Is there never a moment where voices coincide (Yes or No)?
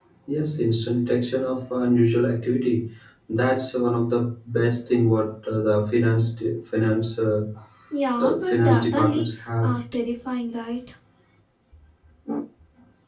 No